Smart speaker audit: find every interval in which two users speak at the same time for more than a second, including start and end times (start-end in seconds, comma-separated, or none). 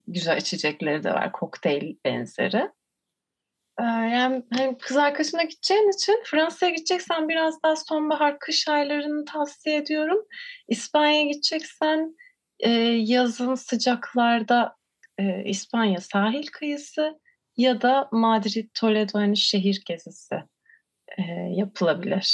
none